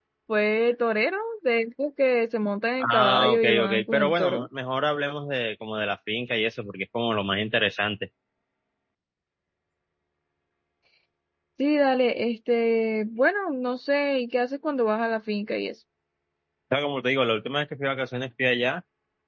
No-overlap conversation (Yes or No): No